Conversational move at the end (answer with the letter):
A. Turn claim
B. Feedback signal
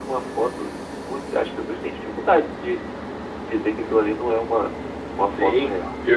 A